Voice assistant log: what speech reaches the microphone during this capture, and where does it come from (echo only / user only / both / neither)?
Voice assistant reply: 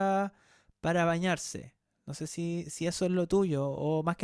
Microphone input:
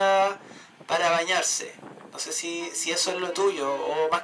echo only